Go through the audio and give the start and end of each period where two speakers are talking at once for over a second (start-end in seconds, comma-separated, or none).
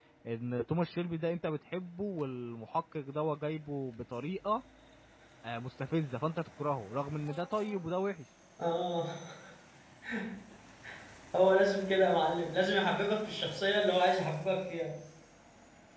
none